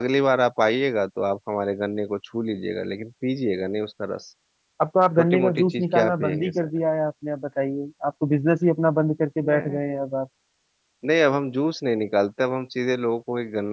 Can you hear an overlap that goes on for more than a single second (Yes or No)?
Yes